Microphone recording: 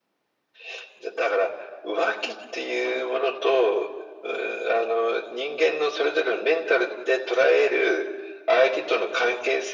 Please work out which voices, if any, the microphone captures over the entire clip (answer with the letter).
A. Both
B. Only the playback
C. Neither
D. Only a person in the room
B